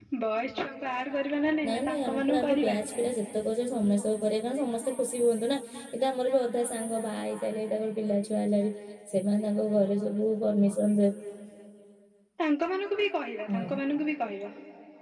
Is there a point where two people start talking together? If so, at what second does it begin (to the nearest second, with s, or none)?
2 s